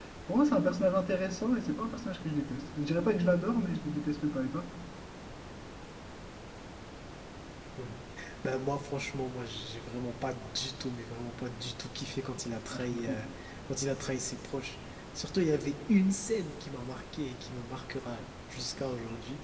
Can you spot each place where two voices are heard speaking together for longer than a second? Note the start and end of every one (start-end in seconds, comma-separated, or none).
none